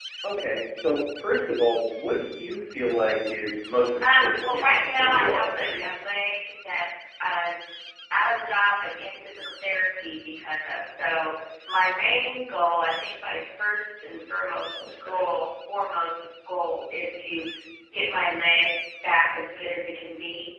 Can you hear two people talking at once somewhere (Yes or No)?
Yes